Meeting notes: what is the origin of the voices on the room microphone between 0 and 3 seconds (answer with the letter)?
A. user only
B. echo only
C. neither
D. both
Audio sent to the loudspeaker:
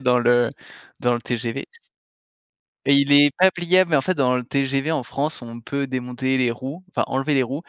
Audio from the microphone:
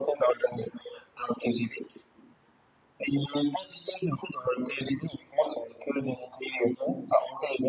B